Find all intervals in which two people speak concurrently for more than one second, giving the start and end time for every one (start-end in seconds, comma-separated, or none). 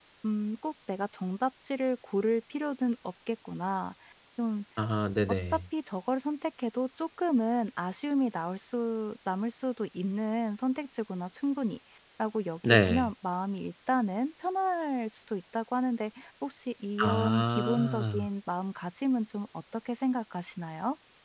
17.0-18.3